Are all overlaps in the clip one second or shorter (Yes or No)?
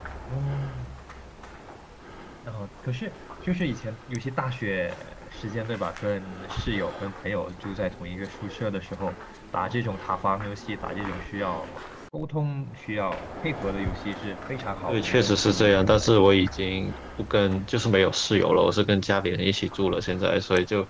No